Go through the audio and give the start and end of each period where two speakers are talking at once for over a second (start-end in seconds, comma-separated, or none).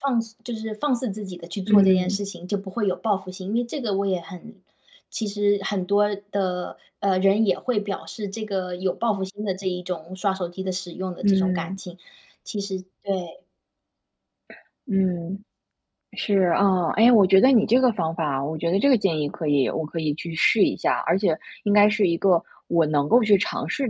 none